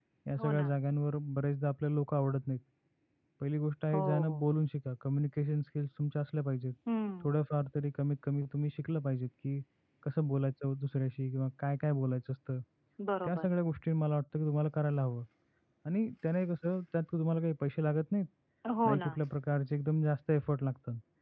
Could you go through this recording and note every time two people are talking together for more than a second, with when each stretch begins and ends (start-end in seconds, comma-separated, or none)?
none